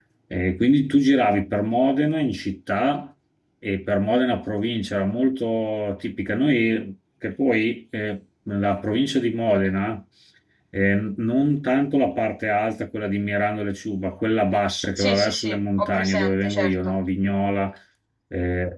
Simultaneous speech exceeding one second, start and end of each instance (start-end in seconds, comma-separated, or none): 15.0-16.9